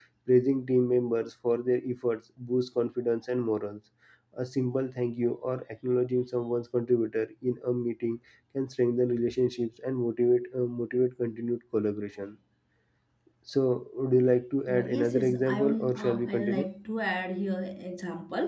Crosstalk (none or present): present